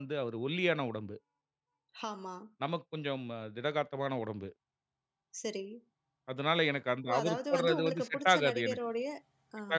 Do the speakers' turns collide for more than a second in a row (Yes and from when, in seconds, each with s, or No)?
Yes, from 7.1 s